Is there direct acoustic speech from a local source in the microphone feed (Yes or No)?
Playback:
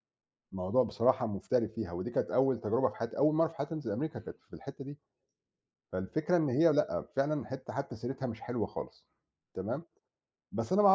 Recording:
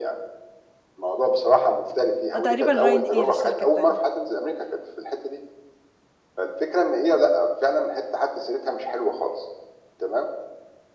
Yes